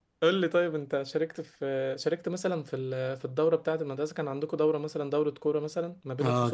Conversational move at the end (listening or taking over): taking over